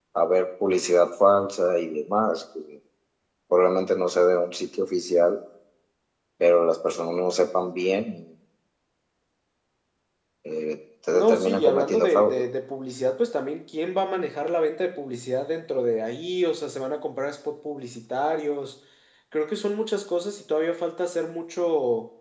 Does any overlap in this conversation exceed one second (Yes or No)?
Yes